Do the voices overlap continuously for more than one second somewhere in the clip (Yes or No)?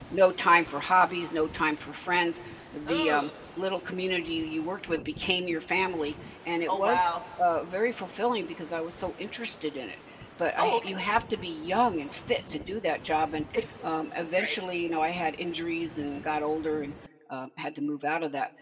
No